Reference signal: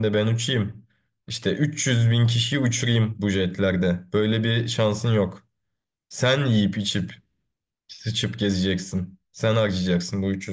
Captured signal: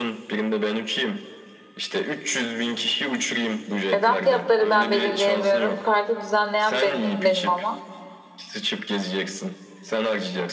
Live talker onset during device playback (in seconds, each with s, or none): 3.9 s